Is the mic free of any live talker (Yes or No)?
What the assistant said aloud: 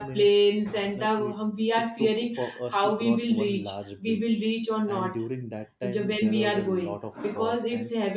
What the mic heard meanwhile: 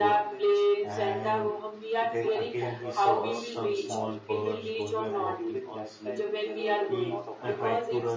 No